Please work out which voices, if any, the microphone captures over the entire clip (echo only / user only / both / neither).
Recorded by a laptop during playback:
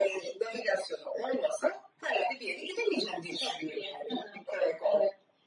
echo only